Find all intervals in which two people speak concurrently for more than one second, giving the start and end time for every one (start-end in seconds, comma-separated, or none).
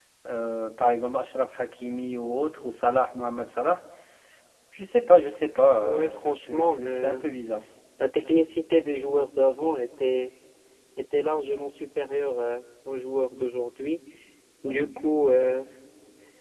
5.8-7.2